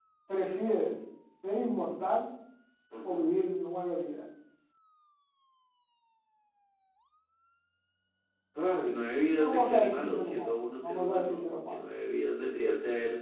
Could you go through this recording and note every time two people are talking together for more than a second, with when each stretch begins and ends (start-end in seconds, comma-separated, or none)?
9.4-11.7